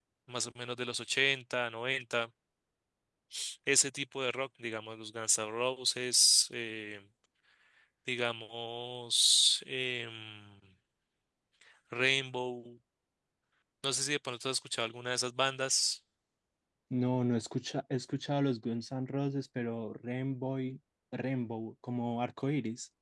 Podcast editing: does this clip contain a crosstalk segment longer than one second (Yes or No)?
No